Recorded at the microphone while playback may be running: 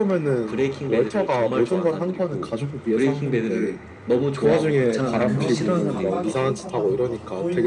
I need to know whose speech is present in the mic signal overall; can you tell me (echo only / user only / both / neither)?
both